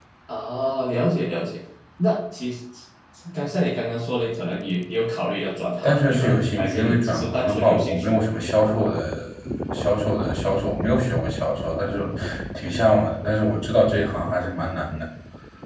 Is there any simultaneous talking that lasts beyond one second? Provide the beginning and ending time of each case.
5.8-8.2

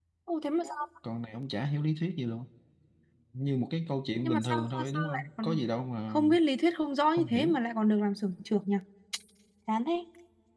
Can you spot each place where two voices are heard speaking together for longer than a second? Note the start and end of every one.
4.2-5.6

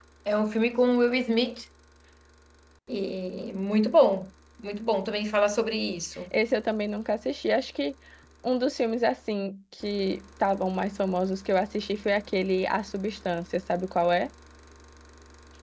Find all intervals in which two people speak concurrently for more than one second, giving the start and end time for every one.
none

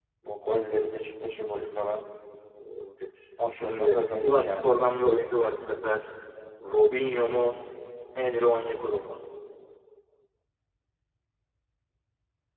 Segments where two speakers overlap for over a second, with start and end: 3.5-4.8

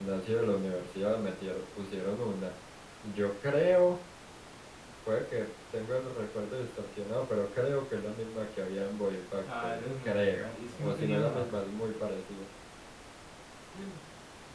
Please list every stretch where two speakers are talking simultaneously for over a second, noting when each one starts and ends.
9.6-11.6

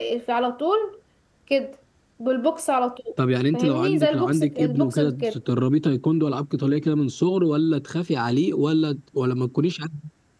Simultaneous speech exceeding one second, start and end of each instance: 3.5-5.2

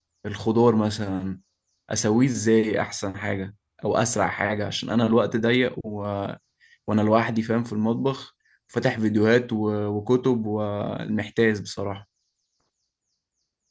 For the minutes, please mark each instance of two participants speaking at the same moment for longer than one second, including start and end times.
none

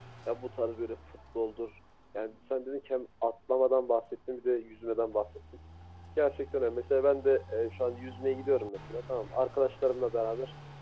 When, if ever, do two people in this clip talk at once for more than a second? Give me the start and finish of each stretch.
none

